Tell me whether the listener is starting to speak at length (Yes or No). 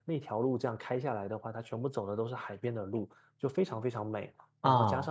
No